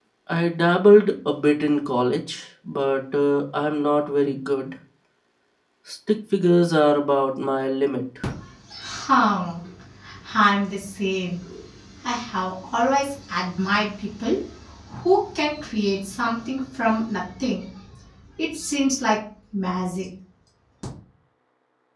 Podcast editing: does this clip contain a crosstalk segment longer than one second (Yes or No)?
No